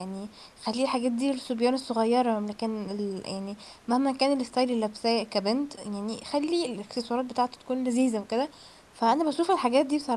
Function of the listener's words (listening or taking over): listening